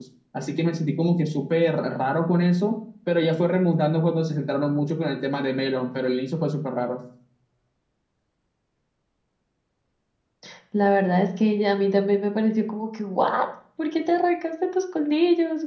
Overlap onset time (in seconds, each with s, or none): none